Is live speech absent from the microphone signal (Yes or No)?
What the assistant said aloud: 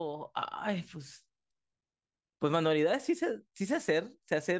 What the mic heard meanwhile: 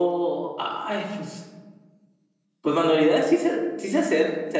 Yes